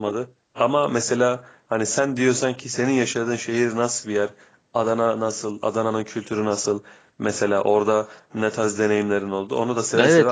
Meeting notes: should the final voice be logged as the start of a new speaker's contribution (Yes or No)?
Yes